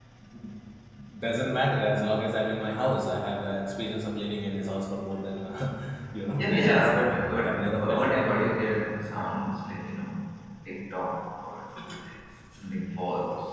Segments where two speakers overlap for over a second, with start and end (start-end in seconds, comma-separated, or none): 6.4-8.4